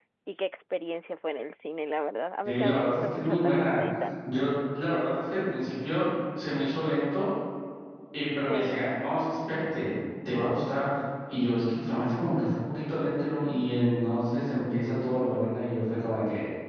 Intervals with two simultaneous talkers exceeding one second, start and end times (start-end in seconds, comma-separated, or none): 2.5-3.8